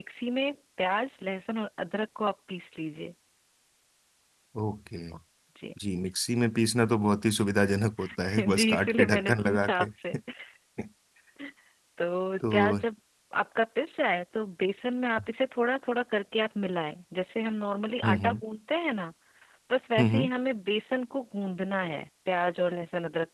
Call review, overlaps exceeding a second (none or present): present